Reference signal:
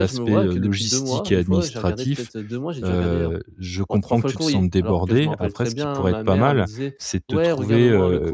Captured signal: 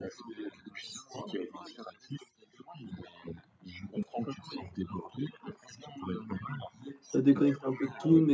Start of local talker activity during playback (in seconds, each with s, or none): 7.2 s